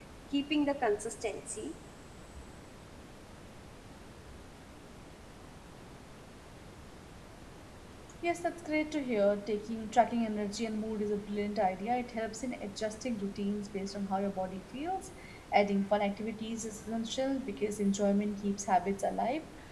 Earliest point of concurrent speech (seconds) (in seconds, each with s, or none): none